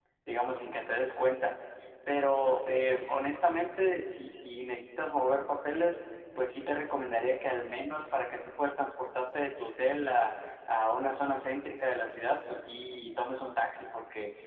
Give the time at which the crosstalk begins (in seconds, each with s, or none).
none